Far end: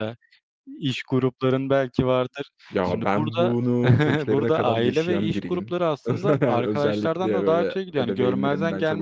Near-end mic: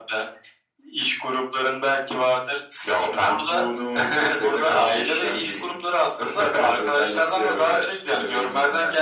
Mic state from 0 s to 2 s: echo only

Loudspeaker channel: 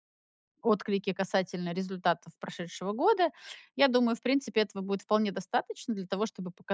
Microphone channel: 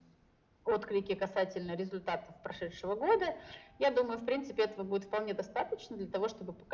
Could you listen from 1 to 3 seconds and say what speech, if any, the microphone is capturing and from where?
echo only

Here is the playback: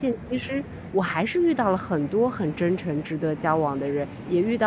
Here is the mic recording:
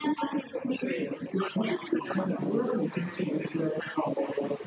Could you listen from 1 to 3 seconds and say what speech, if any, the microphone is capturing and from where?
both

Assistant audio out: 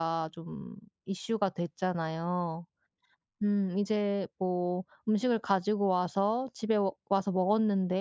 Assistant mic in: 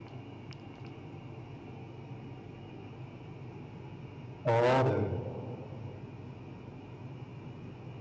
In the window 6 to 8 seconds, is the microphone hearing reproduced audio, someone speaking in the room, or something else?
neither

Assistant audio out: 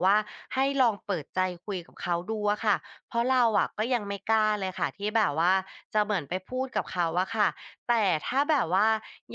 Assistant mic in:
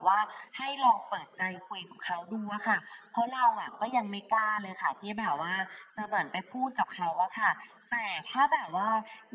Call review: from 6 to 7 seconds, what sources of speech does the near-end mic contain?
echo only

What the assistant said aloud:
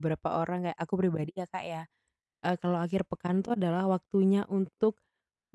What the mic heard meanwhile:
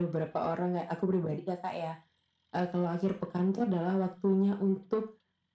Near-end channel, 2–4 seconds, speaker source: echo only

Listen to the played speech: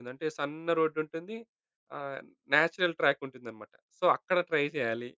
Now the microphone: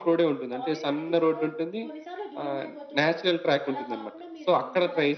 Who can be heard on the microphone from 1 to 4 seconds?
both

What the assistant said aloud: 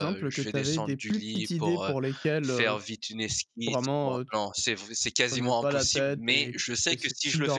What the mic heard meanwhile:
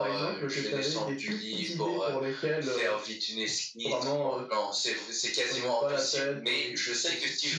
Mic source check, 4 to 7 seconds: echo only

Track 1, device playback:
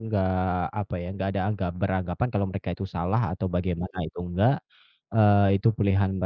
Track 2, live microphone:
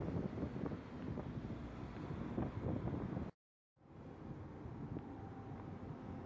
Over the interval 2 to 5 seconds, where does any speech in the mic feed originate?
neither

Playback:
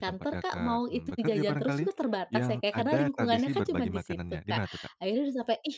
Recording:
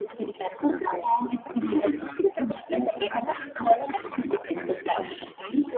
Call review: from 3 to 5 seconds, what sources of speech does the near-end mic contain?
both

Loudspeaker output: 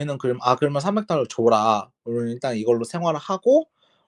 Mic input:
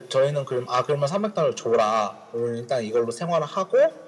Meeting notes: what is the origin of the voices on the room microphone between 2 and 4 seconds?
echo only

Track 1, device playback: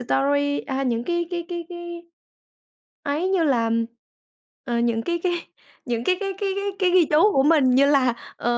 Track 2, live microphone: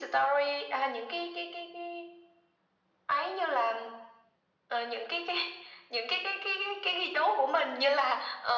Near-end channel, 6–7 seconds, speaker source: echo only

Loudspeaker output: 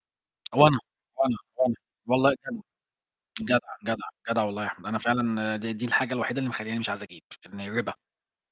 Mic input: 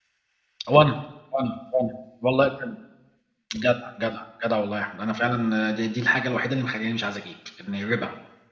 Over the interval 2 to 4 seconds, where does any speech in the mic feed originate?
echo only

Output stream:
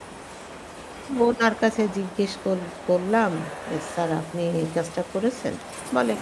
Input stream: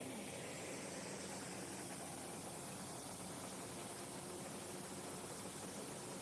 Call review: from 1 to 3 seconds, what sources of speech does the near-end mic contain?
neither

